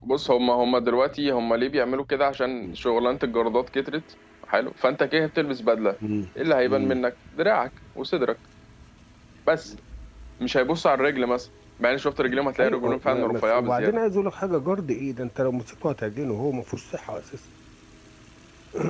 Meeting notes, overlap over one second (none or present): present